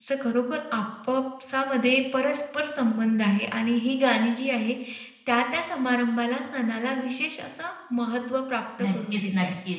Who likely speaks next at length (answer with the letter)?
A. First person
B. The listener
B